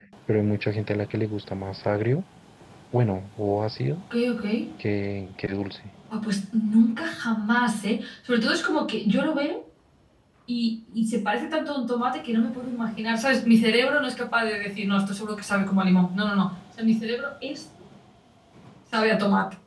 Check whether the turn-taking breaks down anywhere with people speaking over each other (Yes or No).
No